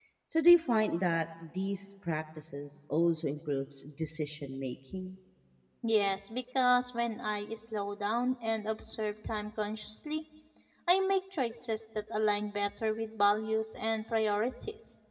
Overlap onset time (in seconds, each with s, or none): none